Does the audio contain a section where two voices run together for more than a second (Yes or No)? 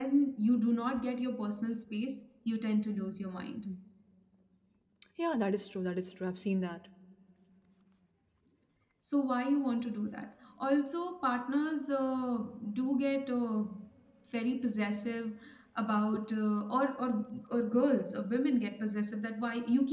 No